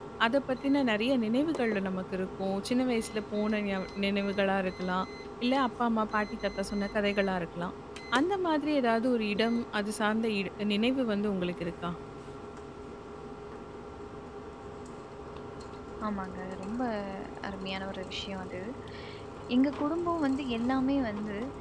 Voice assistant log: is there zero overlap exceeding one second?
Yes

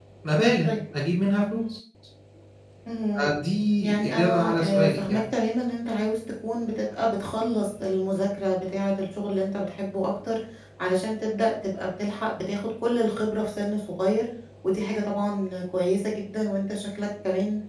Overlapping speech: Yes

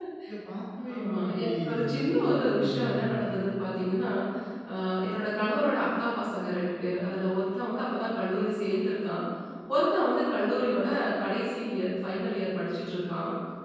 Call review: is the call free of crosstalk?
No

